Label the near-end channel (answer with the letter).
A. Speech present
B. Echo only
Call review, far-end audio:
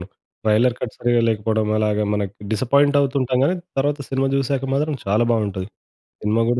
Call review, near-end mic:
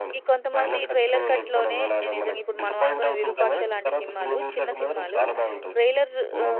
A